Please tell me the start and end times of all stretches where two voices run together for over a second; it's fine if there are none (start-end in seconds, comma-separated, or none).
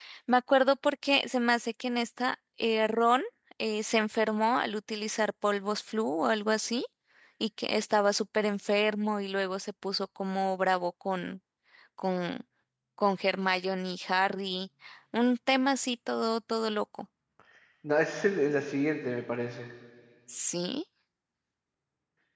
none